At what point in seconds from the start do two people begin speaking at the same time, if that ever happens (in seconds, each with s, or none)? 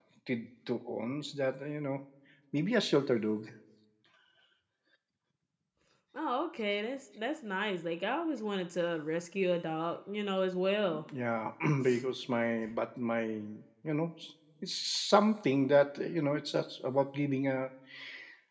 none